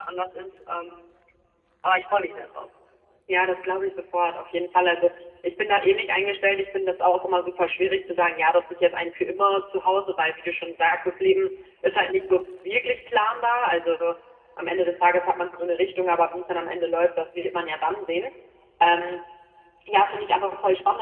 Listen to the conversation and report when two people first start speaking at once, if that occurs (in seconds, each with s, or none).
none